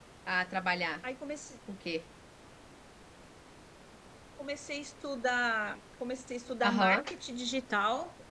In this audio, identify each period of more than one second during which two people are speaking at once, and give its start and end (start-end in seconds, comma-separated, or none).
none